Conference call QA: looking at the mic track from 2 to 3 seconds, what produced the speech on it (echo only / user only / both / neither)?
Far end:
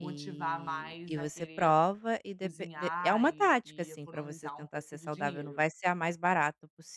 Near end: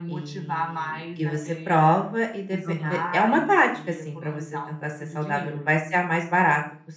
both